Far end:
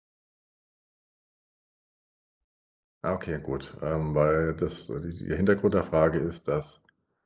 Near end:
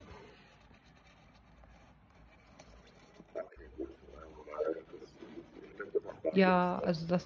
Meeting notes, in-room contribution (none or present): present